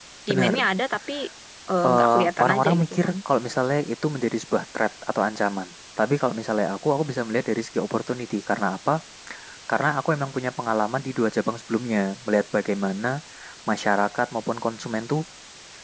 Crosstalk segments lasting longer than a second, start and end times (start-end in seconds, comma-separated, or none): 1.9-3.1